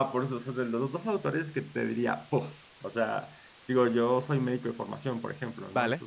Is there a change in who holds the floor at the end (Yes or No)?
No